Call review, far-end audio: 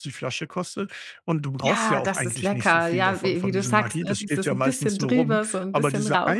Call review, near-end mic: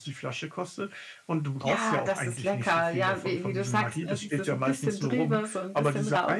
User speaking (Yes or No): No